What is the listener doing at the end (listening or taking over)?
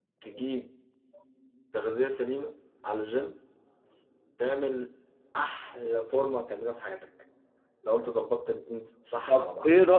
taking over